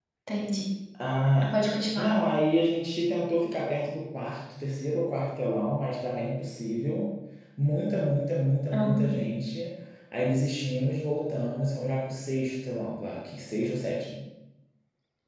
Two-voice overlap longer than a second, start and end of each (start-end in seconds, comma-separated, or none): none